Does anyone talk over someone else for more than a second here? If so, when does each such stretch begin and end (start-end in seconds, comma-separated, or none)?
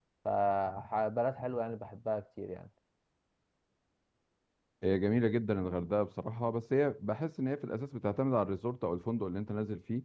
none